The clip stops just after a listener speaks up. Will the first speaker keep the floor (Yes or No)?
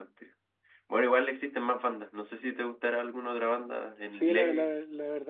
No